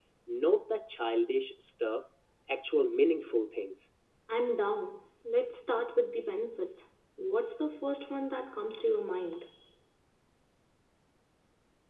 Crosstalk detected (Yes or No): No